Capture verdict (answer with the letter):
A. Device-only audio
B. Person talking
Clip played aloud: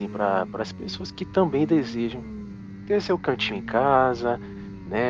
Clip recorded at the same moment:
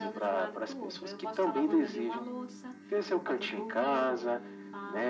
B